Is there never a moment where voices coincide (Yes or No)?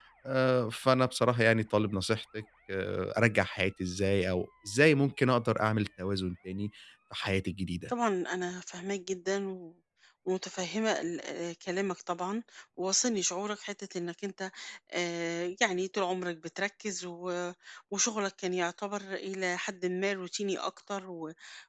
Yes